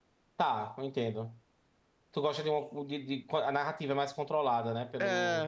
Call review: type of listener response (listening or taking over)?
taking over